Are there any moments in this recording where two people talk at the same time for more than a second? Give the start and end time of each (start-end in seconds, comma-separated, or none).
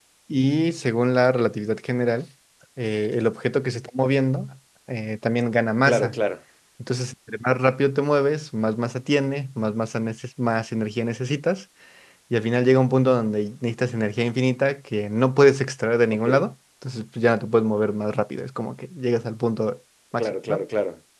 none